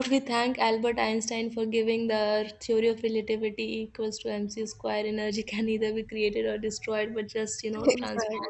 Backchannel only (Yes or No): Yes